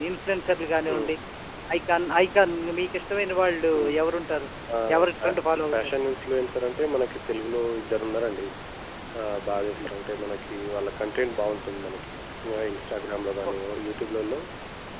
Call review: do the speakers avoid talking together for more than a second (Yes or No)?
Yes